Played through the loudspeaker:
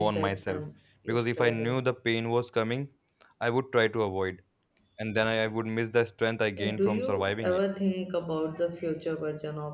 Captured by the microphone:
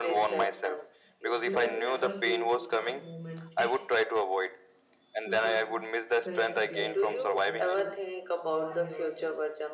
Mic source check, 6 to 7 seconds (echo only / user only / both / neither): both